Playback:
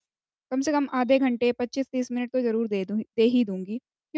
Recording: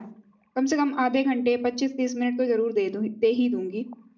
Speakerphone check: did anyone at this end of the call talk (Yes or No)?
No